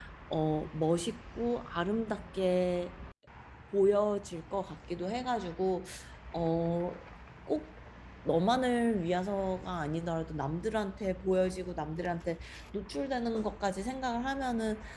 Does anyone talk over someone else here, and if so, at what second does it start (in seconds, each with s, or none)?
none